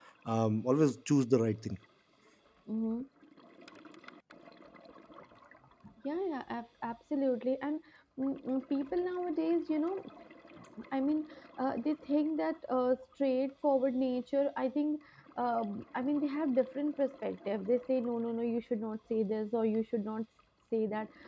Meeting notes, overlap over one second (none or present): none